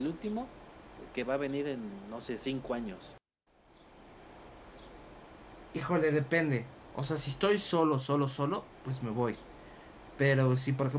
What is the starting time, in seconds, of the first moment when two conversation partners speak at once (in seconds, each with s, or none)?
none